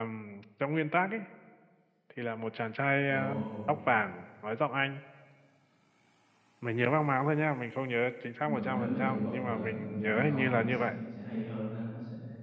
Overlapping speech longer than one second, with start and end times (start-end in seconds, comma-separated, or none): 8.4-10.9